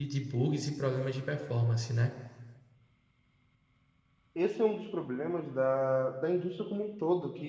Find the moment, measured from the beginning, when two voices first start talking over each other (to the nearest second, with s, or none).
none